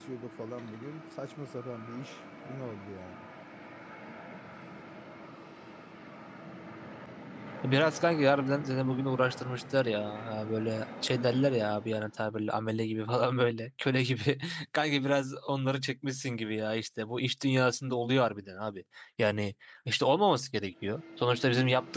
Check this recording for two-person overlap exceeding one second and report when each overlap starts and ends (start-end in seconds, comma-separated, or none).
none